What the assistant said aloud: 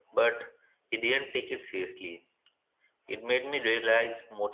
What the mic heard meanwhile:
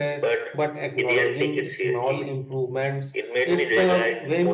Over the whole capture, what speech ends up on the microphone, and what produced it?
both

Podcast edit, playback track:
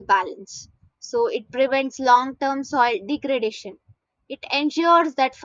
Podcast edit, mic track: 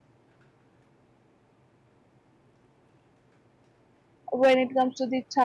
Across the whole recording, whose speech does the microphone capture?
user only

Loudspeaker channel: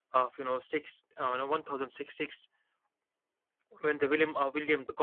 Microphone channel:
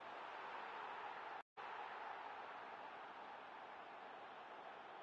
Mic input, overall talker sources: neither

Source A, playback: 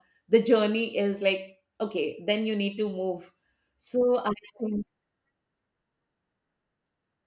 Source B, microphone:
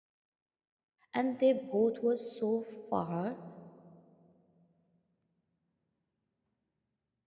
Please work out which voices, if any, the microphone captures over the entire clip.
user only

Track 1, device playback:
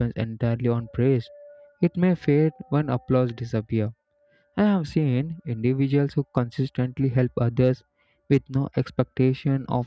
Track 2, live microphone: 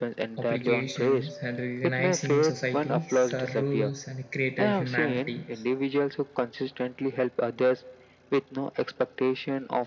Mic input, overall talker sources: both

